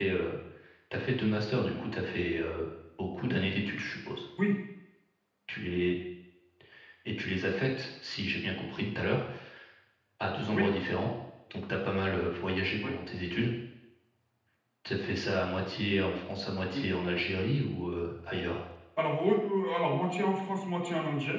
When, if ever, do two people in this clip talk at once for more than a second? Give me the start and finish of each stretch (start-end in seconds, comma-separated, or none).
none